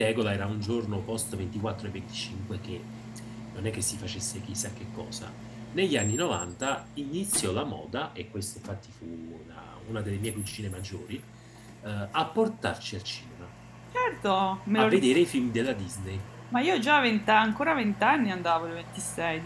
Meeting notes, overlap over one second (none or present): none